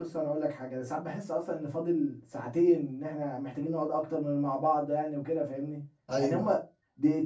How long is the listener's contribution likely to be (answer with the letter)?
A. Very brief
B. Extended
A